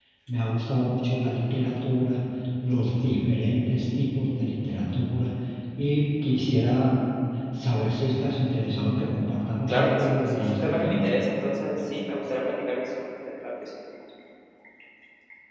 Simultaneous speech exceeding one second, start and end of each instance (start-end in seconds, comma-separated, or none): 9.7-11.1